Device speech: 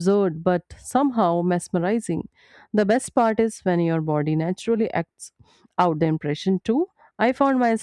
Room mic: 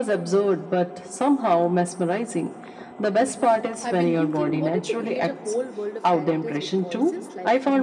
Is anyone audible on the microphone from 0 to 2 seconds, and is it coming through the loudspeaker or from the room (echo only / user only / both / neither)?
echo only